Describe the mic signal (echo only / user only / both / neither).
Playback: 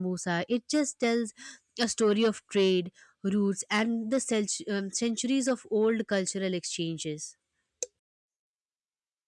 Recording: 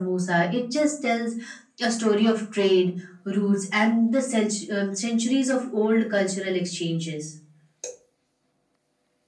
echo only